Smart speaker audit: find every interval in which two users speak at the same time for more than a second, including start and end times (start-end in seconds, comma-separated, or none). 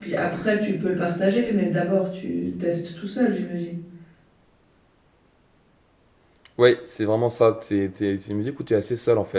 none